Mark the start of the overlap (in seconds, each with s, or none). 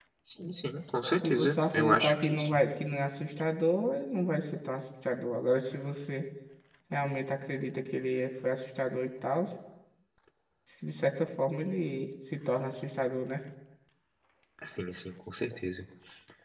1.2 s